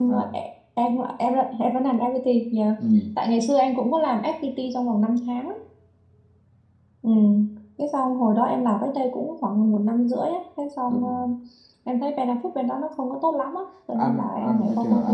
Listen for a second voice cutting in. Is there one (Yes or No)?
Yes